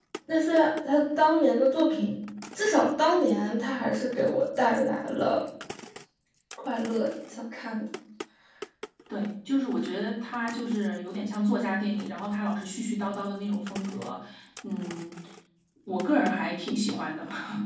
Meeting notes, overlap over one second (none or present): none